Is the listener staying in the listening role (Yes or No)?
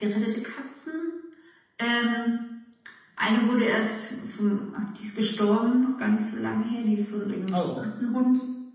Yes